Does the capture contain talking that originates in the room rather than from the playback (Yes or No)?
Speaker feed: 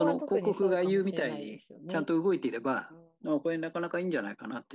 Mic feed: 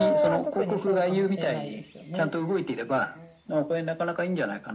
No